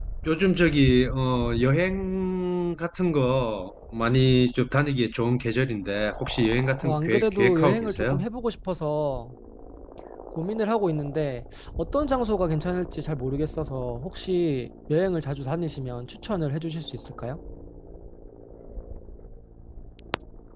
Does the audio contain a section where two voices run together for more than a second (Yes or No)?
Yes